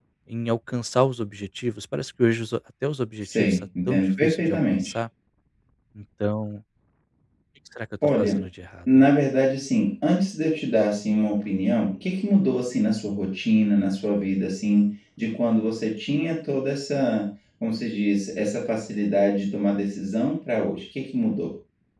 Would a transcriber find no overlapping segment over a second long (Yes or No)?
No